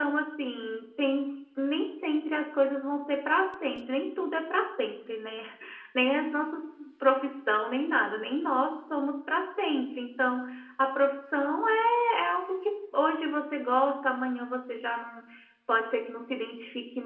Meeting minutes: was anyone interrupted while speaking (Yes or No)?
No